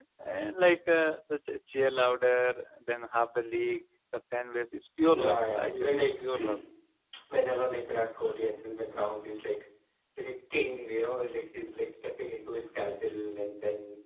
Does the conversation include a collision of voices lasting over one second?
Yes, from 5.1 s

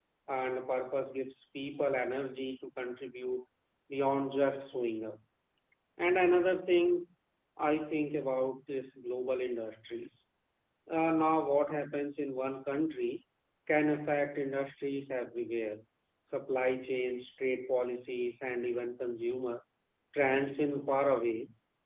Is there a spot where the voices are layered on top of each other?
No

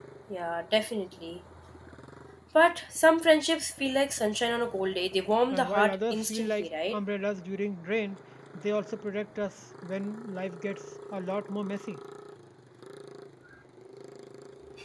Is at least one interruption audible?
Yes, from 5.5 s

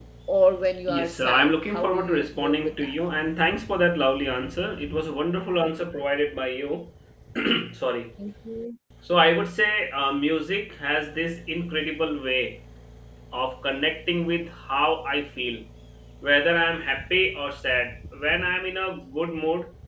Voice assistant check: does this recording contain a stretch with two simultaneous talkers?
Yes, from 0.9 s

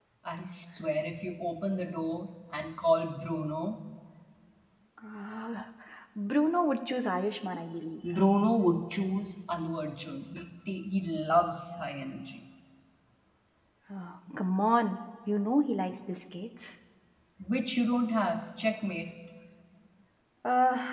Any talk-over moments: No

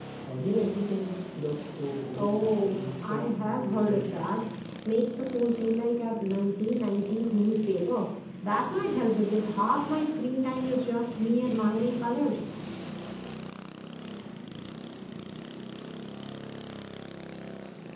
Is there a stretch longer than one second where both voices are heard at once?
Yes, from 2.1 s

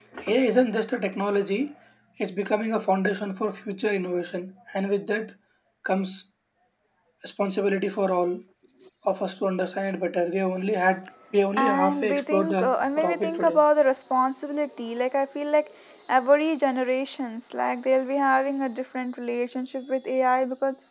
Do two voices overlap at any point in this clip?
Yes, from 11.6 s

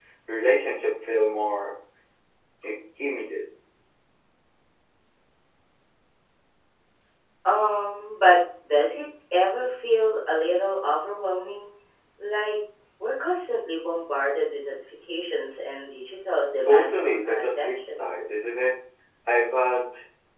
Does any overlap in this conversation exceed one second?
Yes, from 16.6 s

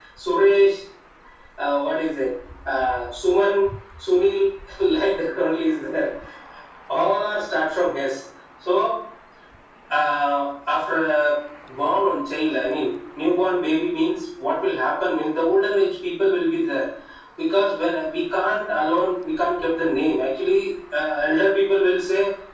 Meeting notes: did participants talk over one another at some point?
No

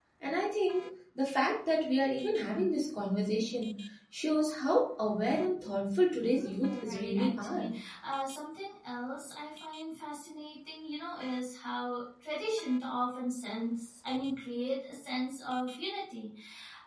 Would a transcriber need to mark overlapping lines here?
Yes, from 6.3 s

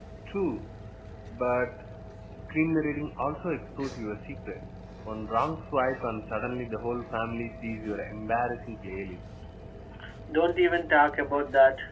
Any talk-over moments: No

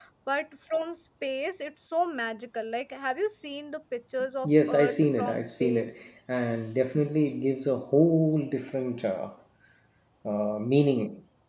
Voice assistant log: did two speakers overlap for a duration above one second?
Yes, from 4.4 s

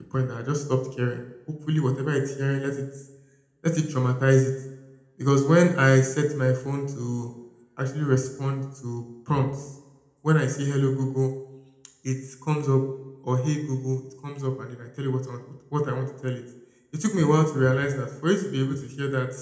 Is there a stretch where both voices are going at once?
No

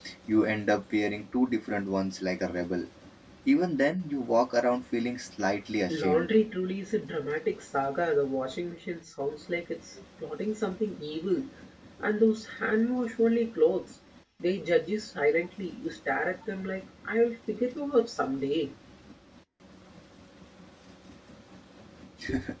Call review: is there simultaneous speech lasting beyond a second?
No

